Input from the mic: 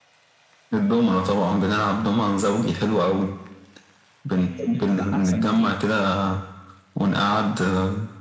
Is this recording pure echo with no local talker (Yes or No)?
No